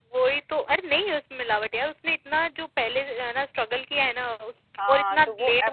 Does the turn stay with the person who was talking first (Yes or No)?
No